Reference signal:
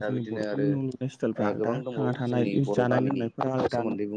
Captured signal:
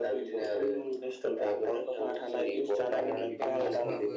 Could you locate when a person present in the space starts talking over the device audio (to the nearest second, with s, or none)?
3 s